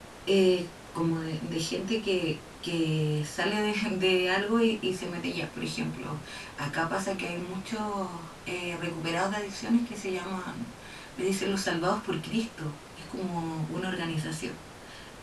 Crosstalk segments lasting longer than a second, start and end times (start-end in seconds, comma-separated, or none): none